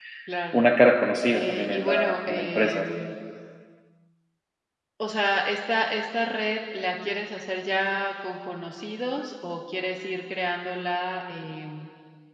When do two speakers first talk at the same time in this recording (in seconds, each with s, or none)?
1.3 s